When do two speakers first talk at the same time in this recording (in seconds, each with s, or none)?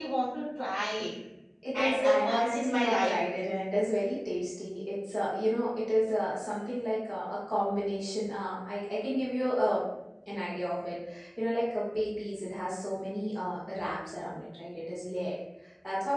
1.7 s